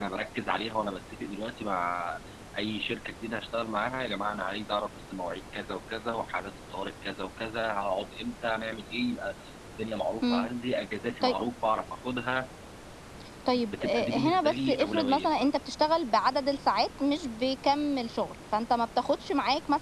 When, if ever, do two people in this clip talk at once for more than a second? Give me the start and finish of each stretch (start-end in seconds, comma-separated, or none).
13.5-15.4